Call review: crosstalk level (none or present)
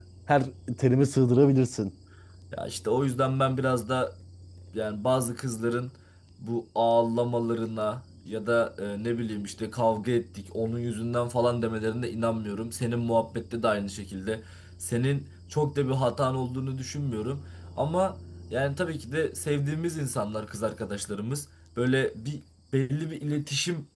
none